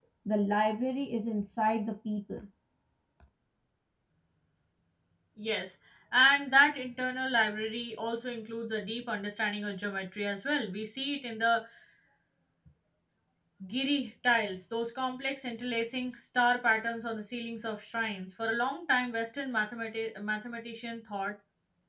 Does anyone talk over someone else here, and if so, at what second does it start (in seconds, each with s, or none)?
none